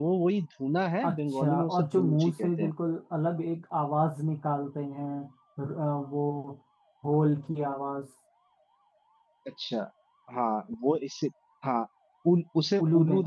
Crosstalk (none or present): present